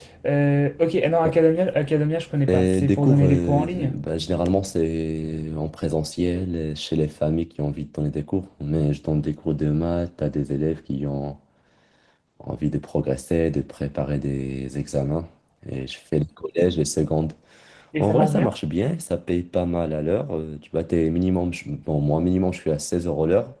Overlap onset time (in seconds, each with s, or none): 2.5 s